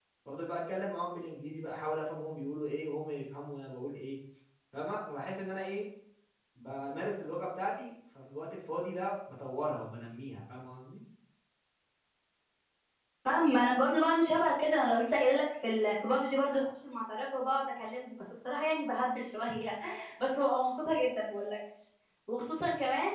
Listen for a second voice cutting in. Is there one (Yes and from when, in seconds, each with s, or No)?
No